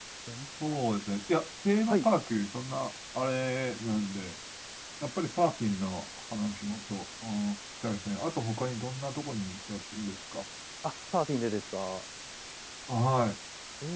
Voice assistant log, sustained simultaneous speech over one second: none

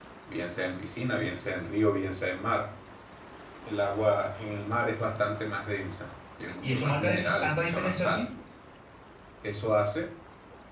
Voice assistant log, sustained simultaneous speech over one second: present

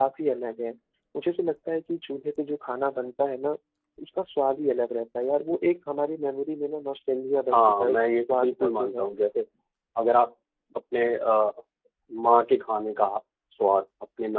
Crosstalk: present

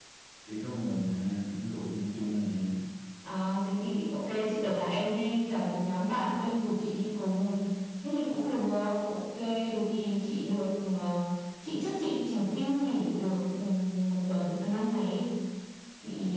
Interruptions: none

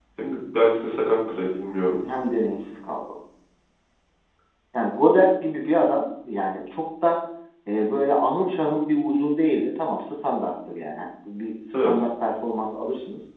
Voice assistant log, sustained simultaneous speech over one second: none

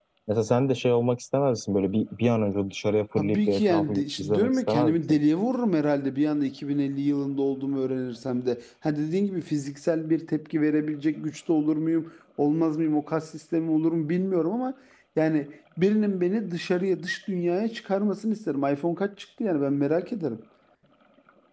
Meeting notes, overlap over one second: present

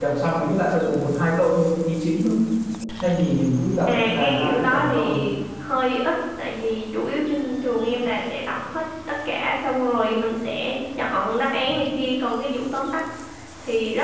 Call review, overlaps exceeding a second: present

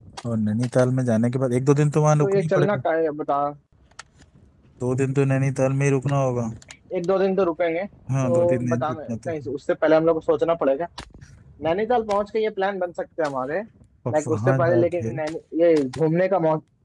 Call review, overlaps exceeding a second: present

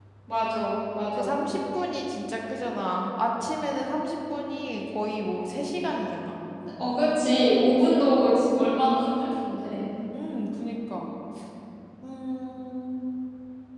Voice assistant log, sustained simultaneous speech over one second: none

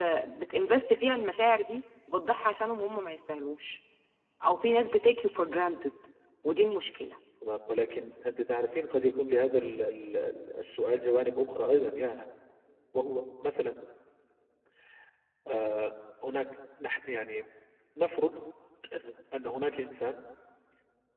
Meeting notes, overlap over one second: none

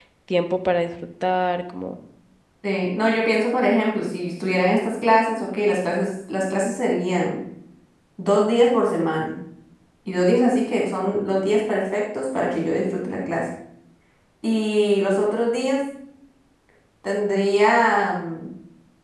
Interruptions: none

